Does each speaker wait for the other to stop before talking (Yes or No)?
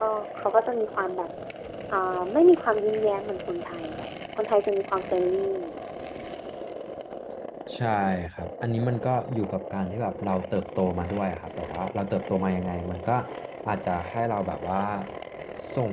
Yes